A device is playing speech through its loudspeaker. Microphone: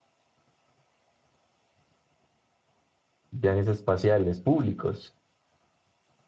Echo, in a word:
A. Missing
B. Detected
A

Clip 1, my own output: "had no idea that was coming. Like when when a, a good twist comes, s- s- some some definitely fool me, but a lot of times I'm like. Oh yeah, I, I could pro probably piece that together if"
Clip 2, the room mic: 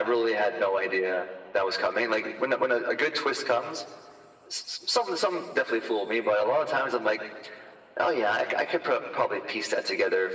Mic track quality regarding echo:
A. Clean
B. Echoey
B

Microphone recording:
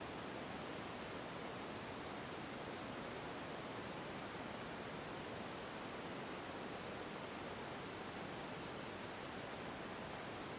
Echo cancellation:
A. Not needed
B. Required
A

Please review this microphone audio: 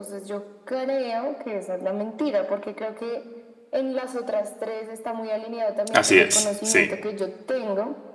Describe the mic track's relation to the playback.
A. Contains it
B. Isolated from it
A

